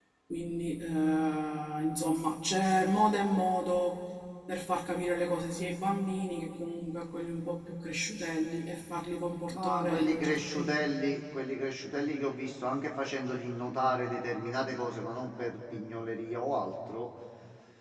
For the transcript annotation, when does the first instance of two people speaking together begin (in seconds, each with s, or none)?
9.4 s